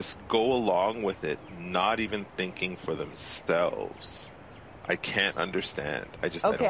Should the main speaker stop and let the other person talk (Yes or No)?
Yes